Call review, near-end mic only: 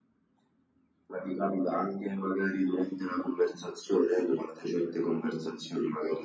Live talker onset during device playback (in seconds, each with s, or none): none